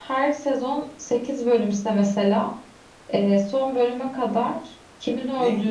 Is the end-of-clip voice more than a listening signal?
Yes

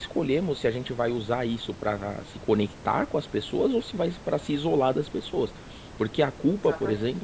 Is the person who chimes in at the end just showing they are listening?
Yes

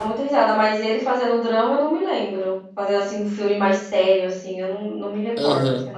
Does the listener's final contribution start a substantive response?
Yes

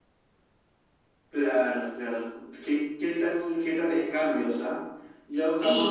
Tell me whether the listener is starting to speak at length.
No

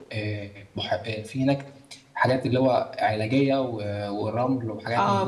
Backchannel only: No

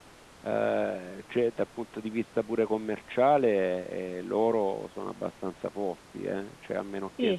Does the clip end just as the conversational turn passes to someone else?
Yes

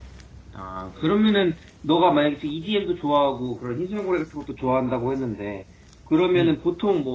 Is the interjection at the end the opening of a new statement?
No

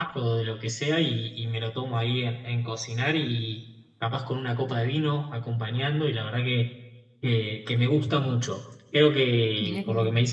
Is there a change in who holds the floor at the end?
No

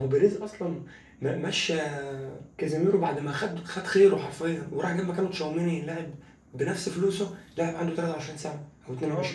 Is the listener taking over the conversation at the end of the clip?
Yes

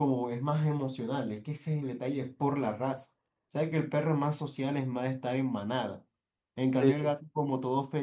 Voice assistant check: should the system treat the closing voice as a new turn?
No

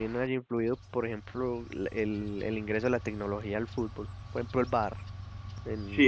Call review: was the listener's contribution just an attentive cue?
No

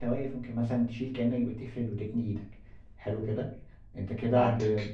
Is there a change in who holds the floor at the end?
No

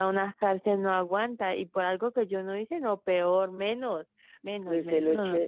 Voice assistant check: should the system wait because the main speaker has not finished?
No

